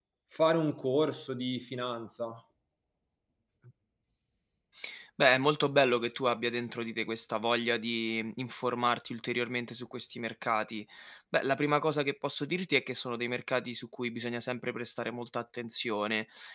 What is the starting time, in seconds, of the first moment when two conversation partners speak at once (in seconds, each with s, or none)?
none